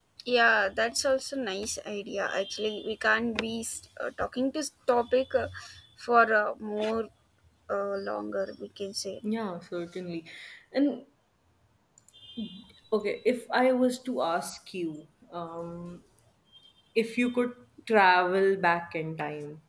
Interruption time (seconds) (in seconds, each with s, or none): none